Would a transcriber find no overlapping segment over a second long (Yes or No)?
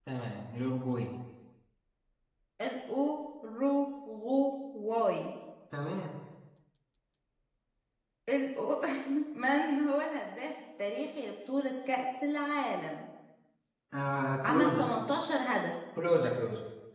Yes